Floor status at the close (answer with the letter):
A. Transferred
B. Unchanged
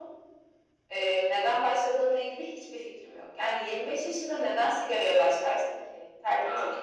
B